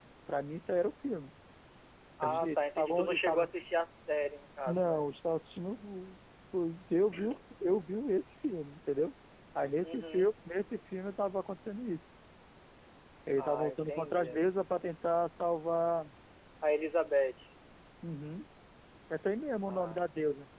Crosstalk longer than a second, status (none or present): present